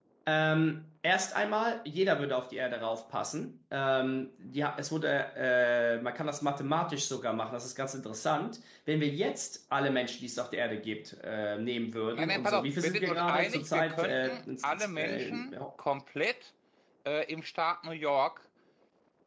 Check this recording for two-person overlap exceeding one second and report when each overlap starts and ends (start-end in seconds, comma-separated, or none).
12.1-15.5